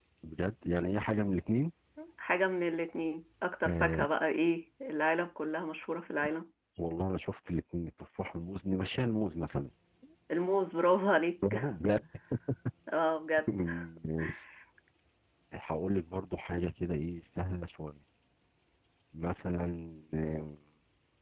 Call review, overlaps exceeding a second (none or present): none